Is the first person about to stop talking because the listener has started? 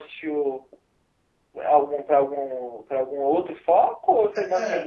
Yes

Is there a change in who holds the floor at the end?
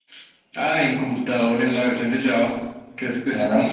No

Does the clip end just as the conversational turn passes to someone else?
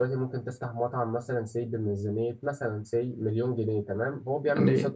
No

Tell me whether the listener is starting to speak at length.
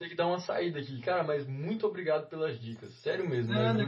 Yes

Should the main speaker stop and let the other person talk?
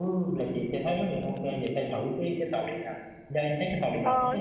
Yes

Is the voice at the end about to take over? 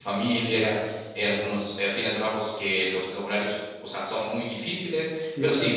No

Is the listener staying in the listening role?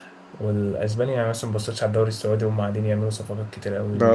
Yes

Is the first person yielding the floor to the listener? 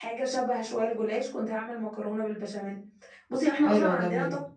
No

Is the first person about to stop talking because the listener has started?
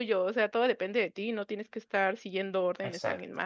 Yes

